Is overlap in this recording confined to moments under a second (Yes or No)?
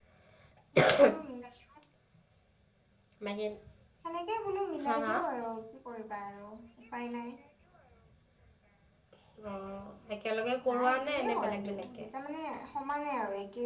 No